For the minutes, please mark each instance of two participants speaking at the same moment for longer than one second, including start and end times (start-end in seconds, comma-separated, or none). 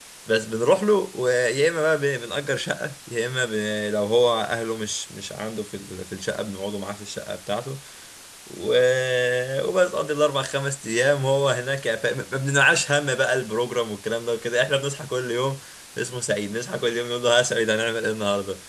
none